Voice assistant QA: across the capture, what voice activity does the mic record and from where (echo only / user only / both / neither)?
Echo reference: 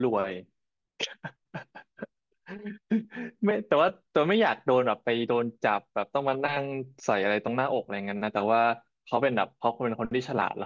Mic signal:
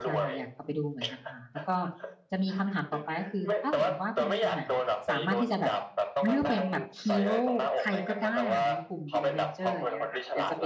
both